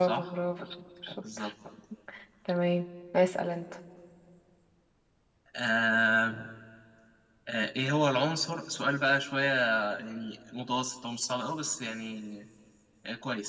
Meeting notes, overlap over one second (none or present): none